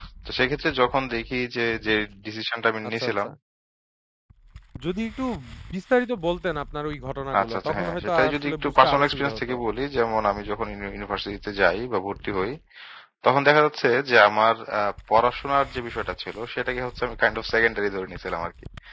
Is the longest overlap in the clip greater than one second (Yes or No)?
Yes